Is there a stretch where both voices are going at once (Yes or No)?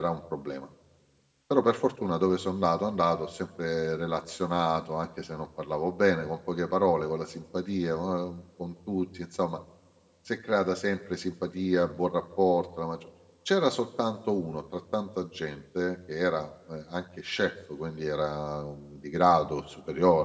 No